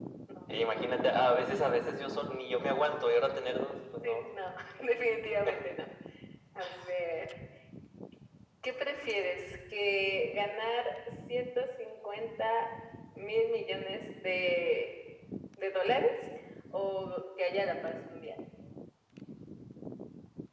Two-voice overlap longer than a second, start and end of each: none

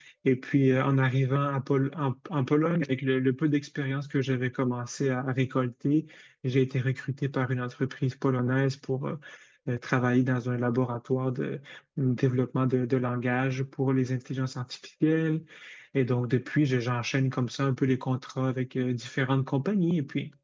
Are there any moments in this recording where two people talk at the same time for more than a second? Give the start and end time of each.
none

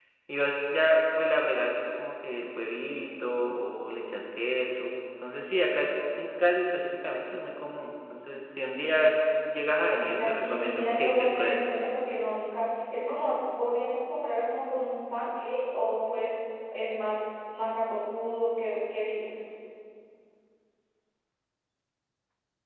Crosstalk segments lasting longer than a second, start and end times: 9.7-11.7

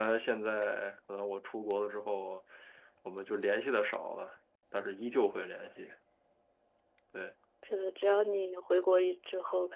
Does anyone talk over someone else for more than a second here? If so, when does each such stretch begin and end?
none

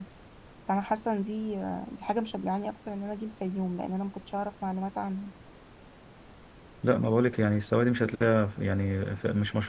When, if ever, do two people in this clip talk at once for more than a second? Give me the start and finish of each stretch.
none

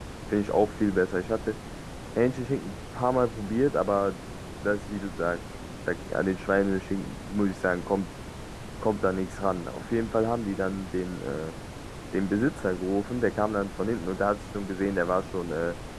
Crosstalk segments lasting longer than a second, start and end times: none

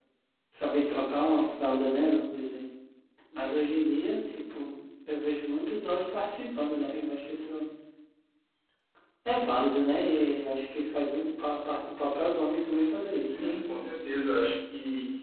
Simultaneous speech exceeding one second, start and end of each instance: none

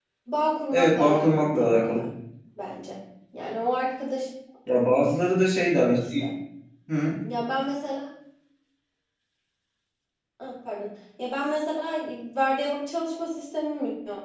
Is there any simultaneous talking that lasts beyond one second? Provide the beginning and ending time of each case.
0.7-2.0

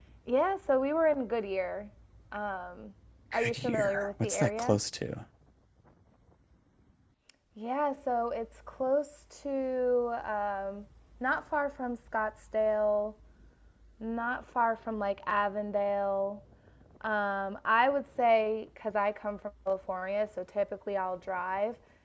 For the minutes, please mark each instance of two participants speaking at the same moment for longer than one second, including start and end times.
3.3-4.8

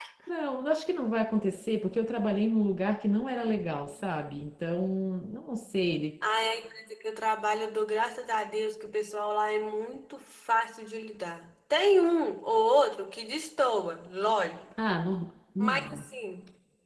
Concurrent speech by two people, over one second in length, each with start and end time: none

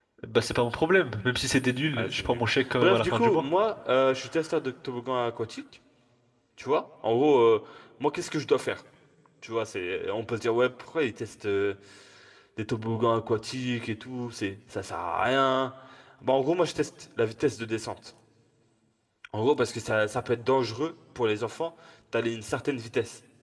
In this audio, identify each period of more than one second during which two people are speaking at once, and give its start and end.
1.9-3.5

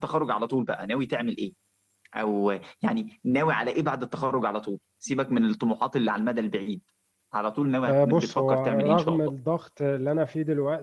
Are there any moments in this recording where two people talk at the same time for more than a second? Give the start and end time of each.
7.9-9.2

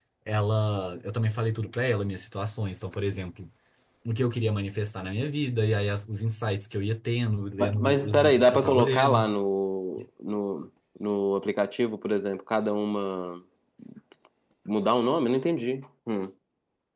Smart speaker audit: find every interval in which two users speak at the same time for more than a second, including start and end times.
7.6-9.2

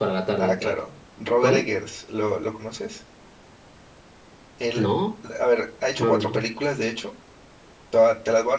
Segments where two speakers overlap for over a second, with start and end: none

